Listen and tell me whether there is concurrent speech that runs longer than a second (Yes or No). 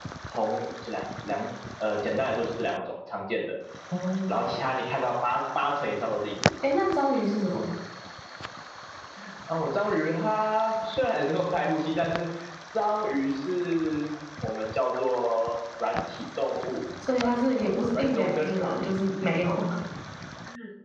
Yes